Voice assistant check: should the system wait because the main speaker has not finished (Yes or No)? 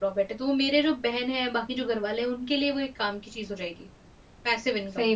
No